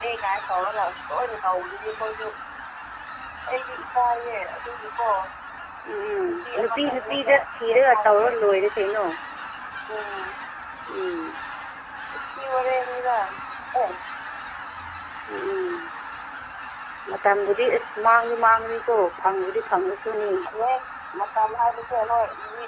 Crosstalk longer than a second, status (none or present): present